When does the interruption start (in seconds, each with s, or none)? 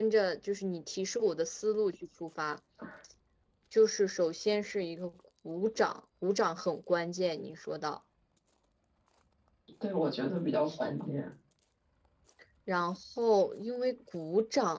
none